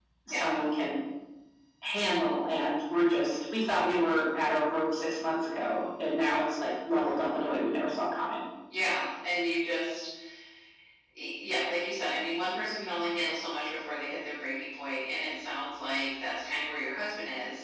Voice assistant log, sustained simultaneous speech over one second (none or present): none